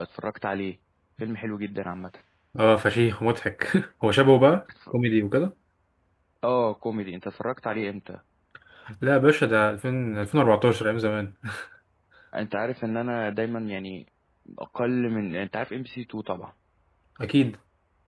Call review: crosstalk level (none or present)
none